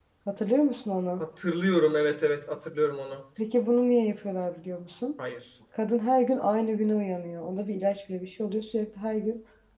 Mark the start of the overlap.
none

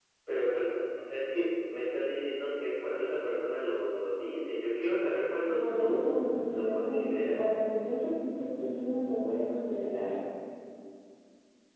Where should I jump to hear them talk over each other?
5 s

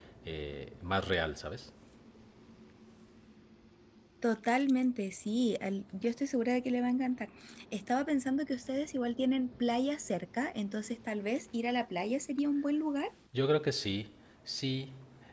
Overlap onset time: none

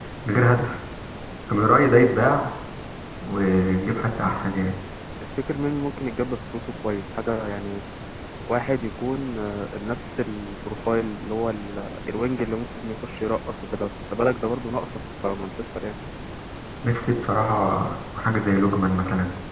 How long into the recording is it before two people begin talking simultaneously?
none

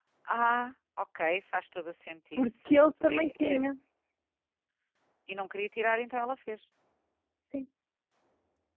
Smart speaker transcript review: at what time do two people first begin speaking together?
2 s

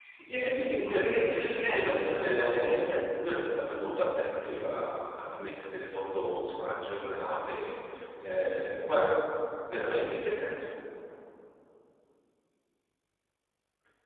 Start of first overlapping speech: 1 s

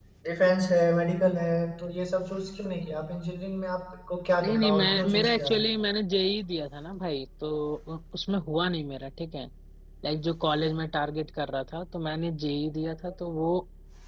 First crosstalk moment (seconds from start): 4 s

